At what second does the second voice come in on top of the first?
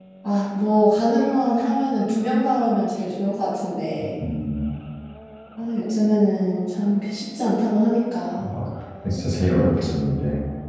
none

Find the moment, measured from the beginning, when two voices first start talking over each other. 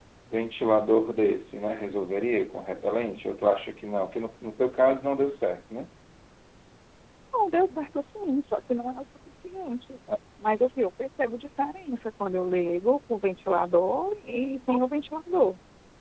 none

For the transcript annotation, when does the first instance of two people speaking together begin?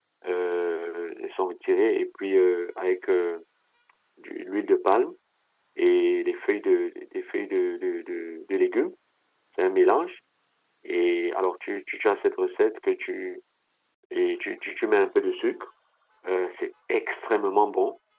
none

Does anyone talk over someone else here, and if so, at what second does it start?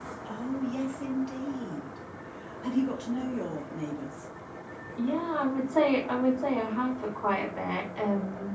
none

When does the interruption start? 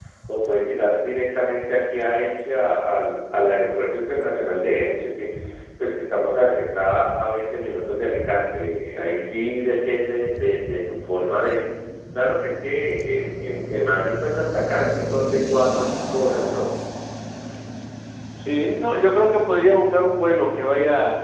none

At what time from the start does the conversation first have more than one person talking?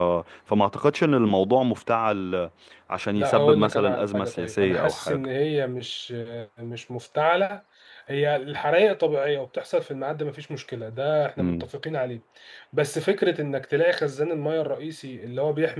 3.2 s

